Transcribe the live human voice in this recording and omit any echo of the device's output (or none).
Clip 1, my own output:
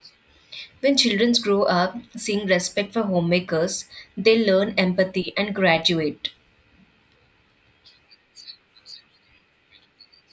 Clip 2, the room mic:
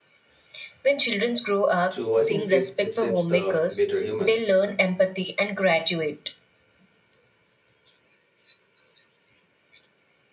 So I think shape- it shapes the better humans,